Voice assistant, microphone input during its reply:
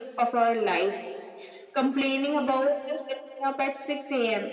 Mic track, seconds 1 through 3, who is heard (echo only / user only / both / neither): echo only